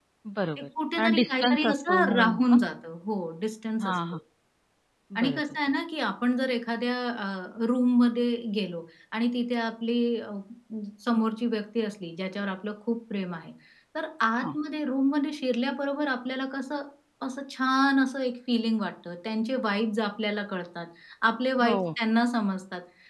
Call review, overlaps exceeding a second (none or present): present